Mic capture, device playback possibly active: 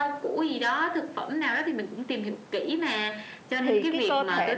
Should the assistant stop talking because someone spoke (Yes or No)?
Yes